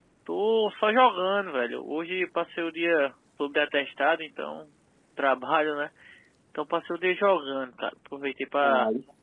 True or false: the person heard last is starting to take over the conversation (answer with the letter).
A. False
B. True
A